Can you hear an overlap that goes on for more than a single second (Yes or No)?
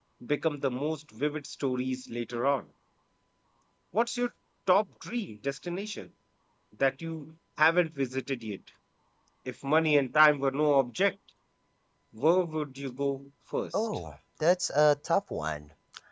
No